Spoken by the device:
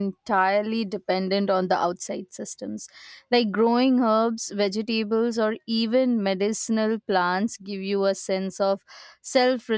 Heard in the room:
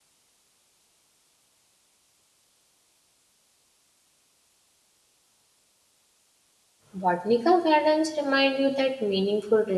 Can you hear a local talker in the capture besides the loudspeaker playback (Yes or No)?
Yes